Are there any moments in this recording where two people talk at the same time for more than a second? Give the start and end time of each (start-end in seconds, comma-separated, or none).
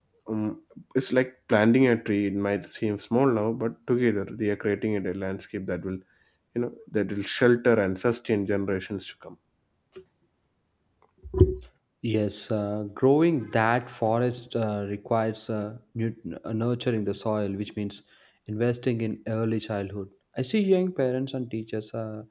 none